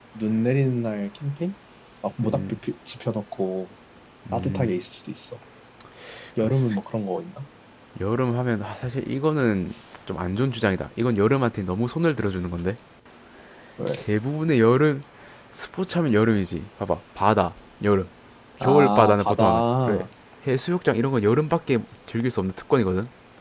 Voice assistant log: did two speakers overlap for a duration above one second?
Yes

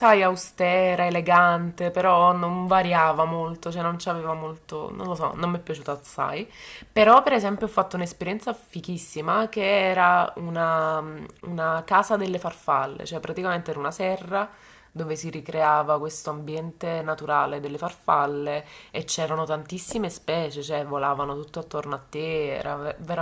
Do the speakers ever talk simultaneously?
No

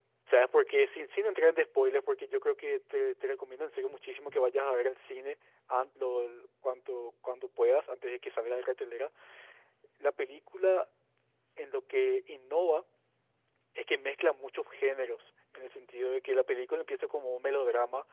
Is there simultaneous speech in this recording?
No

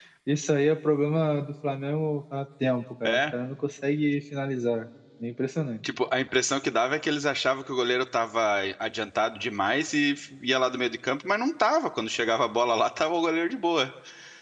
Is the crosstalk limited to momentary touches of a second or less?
Yes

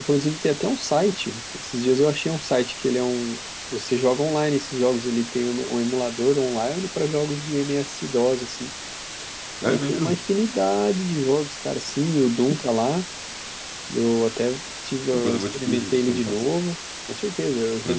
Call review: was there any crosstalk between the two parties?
Yes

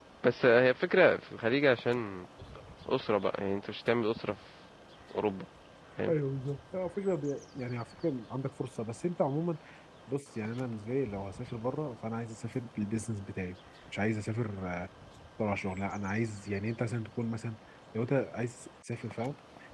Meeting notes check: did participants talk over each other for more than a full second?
No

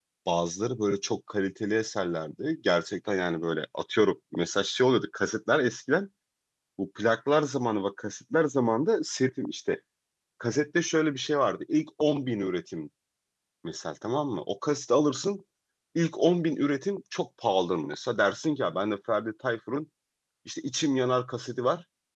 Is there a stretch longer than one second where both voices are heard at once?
No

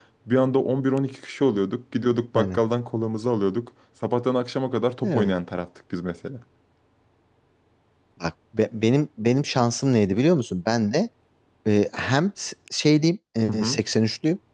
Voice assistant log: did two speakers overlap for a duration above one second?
No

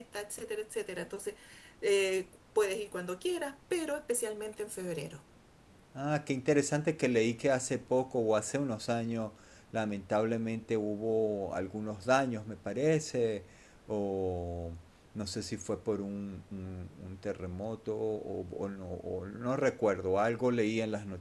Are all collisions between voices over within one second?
Yes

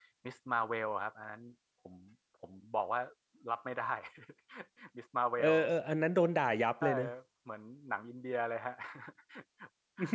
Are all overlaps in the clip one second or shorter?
Yes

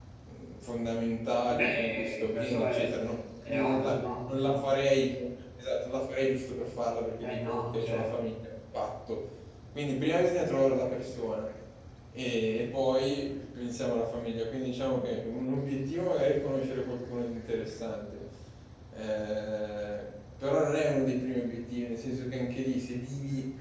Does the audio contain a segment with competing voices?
Yes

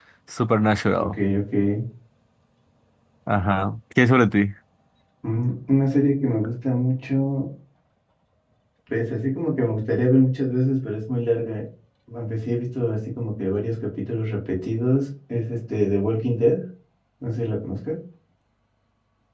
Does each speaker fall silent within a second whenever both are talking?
Yes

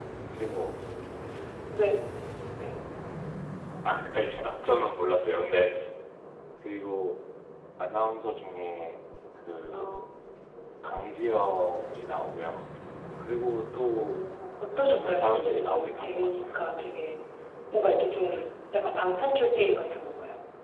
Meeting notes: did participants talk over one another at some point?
Yes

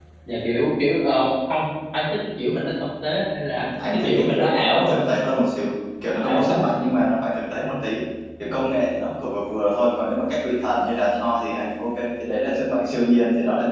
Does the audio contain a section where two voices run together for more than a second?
Yes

